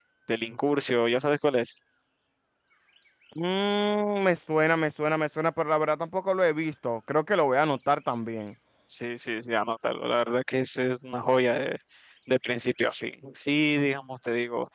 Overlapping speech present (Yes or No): No